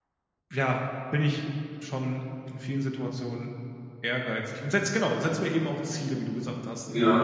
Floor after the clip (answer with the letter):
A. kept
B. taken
B